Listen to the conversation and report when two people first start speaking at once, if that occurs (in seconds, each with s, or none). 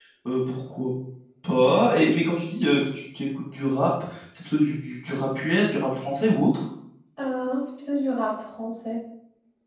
none